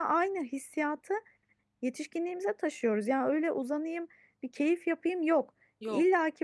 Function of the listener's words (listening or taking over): listening